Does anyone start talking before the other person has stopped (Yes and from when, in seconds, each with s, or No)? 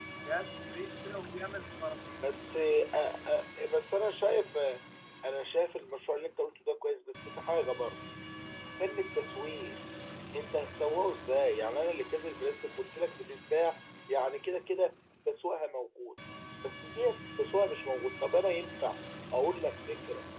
No